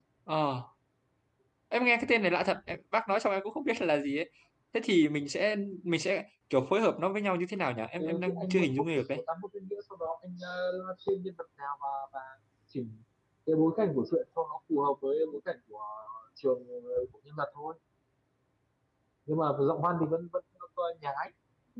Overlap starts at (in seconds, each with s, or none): 8.0 s